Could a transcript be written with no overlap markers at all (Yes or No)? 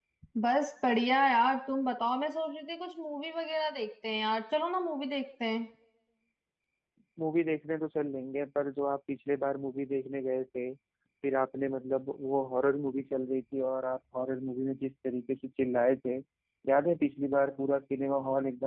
Yes